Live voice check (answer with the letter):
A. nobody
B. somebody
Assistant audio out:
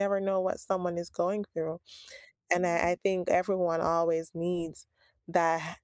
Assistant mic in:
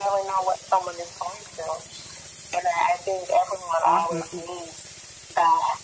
B